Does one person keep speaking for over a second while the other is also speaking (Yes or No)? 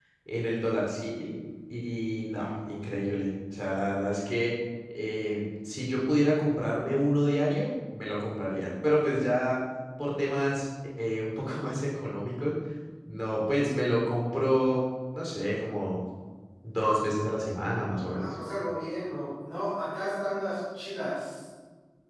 No